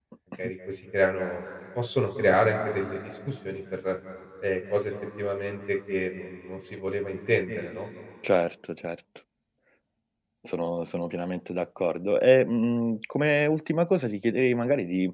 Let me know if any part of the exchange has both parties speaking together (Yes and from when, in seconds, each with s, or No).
No